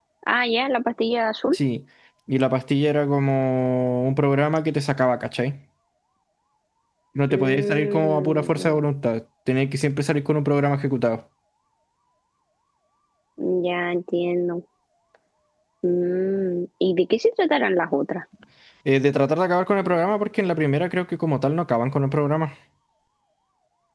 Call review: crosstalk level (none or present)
present